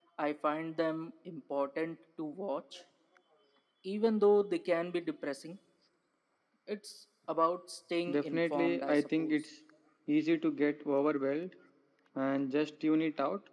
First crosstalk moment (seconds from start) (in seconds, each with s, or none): 8.1 s